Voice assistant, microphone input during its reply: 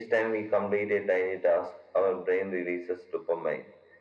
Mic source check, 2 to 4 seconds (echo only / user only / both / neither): echo only